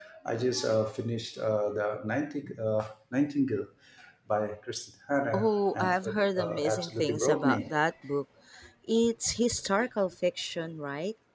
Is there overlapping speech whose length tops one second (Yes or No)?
Yes